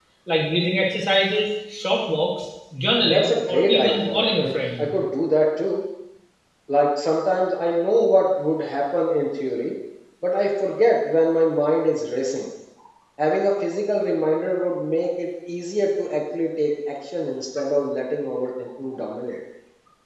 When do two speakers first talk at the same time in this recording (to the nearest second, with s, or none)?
3 s